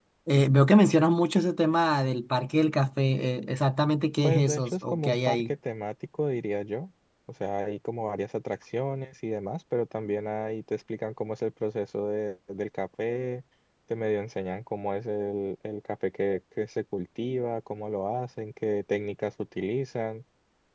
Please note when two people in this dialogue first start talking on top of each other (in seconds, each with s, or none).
4.2 s